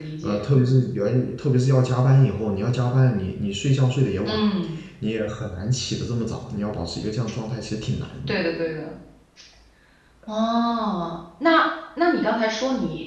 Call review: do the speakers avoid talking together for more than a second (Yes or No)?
Yes